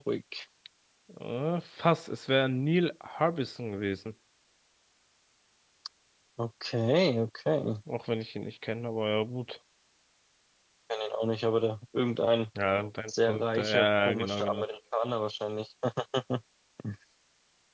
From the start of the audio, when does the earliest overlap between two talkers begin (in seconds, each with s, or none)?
13.1 s